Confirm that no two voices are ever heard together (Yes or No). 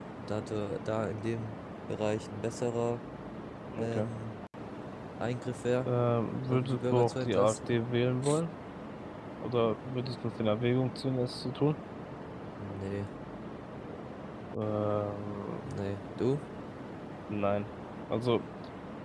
No